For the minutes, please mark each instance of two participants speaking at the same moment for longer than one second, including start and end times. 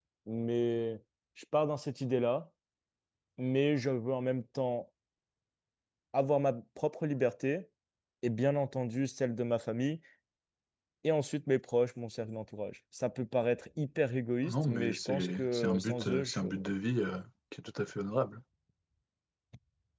14.4-16.5

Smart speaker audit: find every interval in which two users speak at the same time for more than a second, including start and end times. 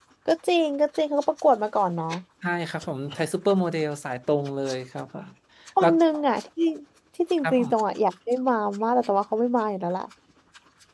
none

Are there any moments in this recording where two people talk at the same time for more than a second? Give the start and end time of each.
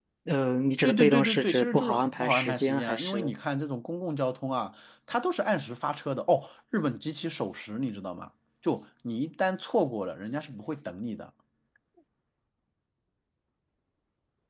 0.8-3.3

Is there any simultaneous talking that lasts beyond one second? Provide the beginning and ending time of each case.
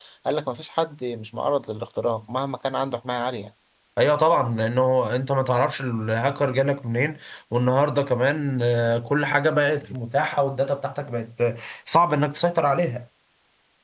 none

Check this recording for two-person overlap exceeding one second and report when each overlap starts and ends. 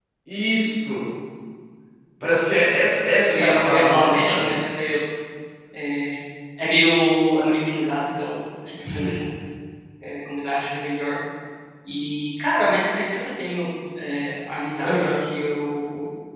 3.3-4.5

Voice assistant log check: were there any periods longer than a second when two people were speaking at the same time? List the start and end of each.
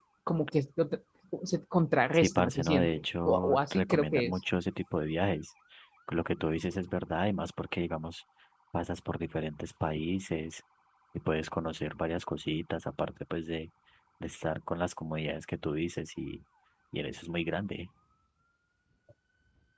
2.1-4.4

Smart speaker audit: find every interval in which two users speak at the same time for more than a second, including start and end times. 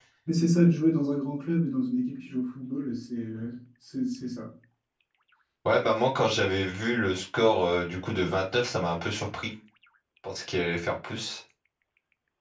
none

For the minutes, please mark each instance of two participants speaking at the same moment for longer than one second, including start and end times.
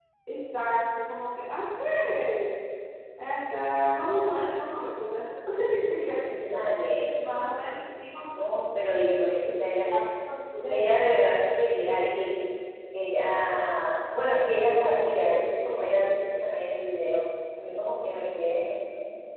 none

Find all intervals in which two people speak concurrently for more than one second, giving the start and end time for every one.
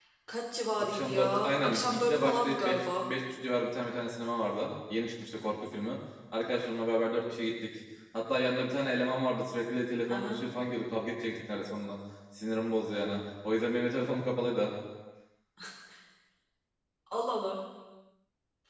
0.8-3.1

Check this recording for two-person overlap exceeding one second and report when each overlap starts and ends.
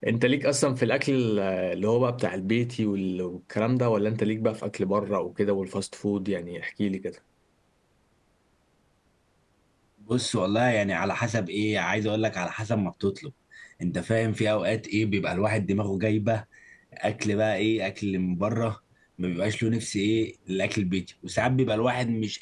none

